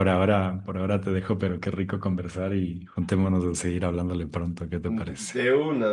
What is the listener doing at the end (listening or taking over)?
taking over